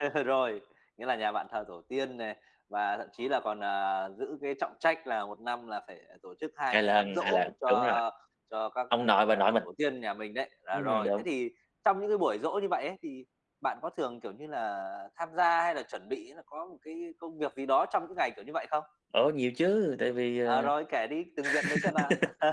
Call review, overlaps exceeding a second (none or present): present